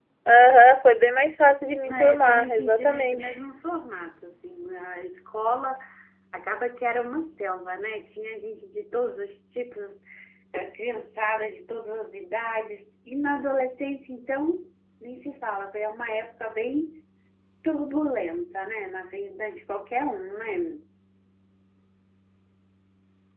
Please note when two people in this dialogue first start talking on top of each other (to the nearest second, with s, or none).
2 s